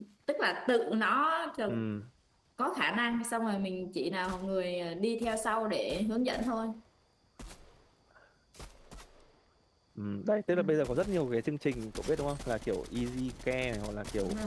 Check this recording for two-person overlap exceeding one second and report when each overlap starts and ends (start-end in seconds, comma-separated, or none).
none